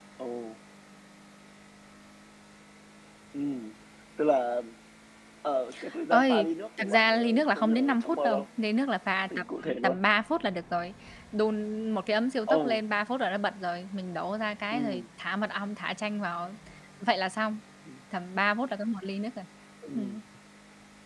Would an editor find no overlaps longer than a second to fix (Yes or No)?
No